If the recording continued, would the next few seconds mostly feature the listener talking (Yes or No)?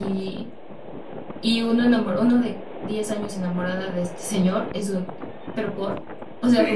No